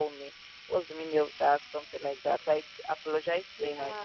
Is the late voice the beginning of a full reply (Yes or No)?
No